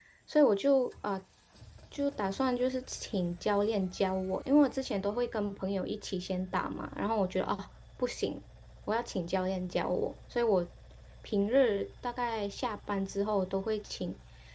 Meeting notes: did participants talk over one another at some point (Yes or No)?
No